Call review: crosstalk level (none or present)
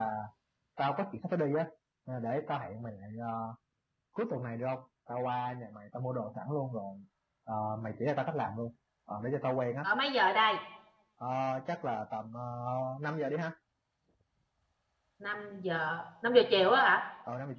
none